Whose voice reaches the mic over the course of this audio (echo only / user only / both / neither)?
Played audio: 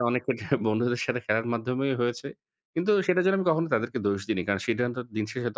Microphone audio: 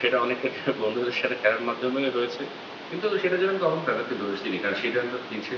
echo only